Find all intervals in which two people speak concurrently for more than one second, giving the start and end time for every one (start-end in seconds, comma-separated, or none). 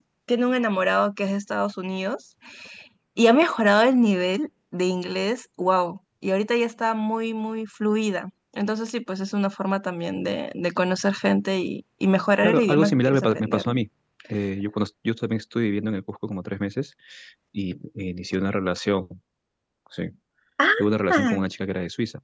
12.4-13.6